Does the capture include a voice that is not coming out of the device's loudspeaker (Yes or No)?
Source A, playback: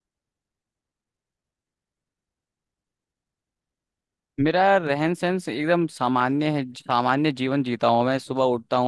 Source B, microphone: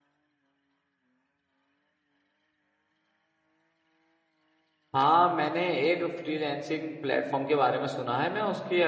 Yes